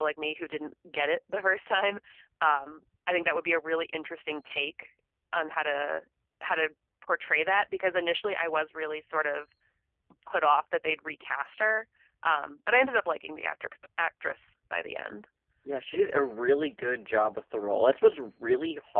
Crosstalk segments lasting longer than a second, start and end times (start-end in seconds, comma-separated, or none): none